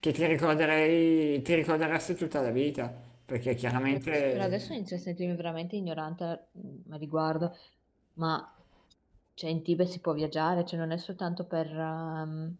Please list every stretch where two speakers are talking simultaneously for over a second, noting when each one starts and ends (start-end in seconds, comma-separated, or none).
none